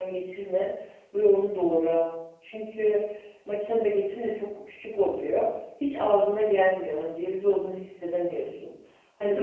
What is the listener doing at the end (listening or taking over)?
listening